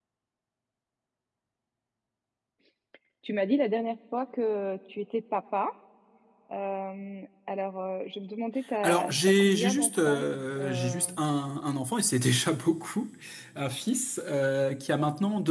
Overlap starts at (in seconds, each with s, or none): 8.8 s